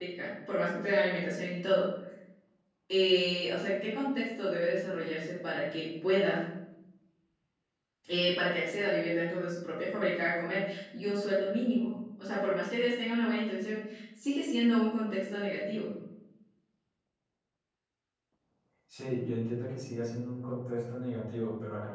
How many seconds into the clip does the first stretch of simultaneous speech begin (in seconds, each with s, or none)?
none